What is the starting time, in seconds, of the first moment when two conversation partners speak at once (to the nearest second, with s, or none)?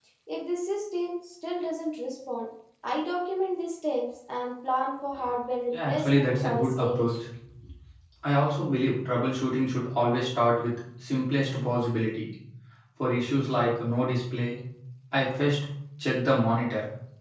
6 s